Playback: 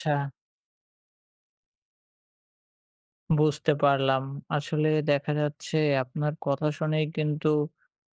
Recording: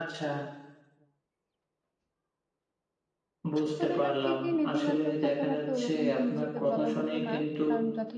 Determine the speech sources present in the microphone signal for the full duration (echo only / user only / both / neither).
both